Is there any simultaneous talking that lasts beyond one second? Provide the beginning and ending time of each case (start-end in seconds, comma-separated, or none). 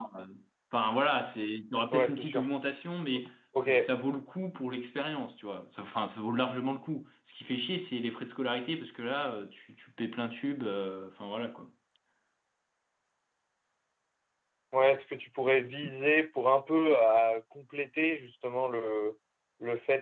none